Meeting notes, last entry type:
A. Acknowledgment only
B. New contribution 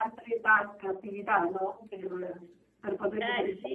B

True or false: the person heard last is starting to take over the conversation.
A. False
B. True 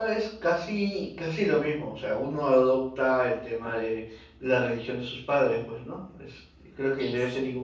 A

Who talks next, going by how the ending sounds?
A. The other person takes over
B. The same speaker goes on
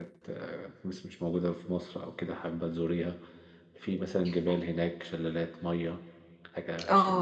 A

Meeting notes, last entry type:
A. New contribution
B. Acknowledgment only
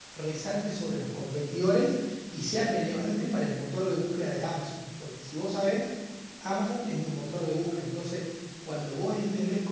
B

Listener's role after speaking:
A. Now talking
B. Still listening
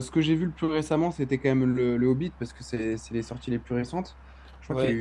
B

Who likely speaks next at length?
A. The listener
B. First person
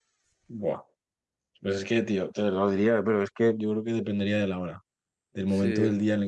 B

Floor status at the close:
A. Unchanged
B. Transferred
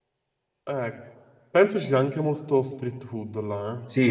B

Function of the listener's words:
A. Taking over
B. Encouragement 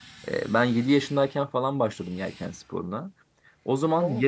B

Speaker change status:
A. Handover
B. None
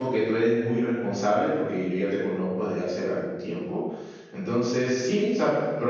B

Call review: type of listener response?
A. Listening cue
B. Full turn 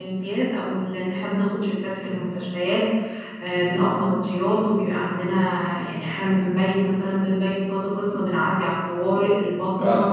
A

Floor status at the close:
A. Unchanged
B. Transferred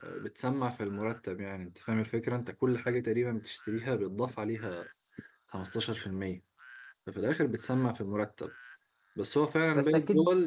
A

